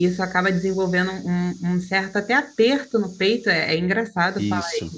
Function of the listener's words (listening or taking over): taking over